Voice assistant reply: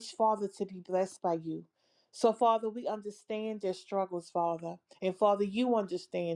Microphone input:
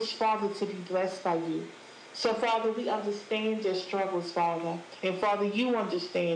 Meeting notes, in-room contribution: none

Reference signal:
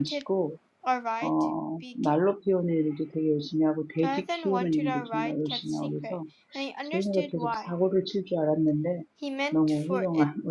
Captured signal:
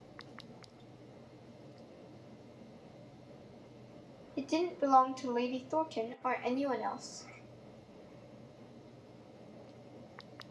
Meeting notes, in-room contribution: present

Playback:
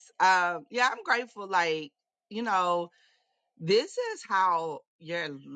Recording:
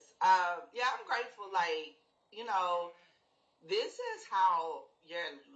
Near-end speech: none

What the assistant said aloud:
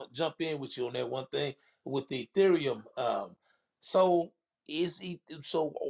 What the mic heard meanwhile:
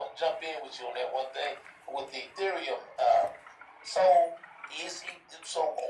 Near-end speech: none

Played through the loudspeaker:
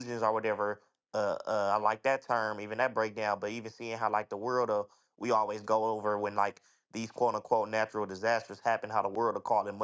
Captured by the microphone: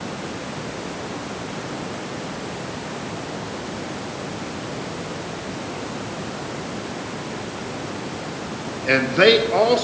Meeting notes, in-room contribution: present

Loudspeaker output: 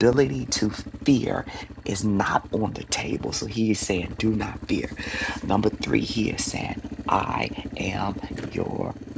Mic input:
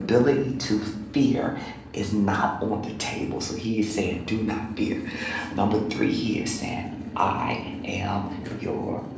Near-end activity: none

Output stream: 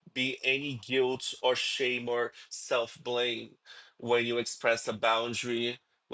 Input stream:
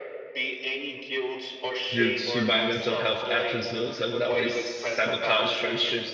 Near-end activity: present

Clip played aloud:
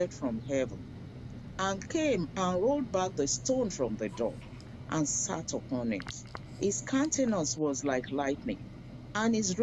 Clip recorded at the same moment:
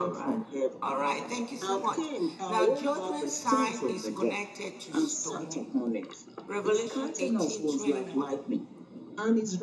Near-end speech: present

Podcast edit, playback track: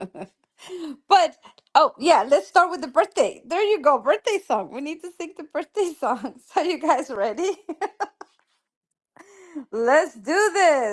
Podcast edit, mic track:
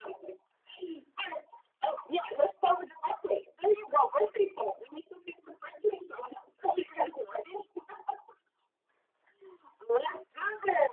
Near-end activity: none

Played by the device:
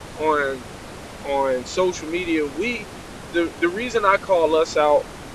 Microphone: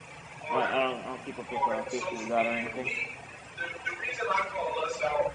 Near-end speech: present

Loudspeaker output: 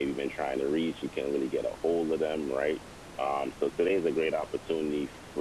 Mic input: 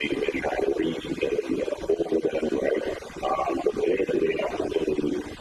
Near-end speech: none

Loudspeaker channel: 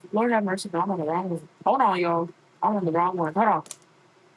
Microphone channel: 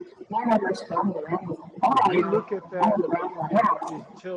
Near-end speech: present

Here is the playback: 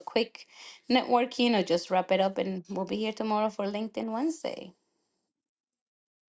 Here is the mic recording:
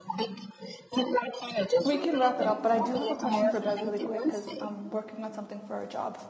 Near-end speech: present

